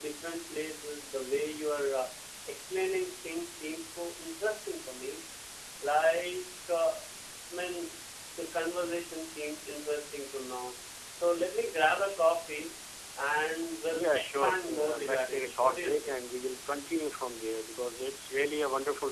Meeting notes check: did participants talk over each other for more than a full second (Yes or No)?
Yes